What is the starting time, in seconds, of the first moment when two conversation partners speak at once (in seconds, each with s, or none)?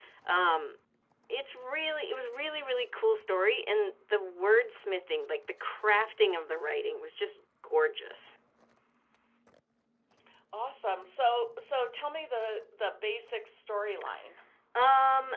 none